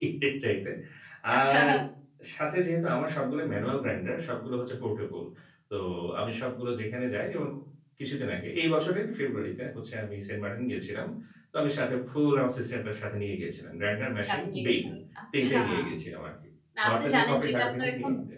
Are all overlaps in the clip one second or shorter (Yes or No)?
No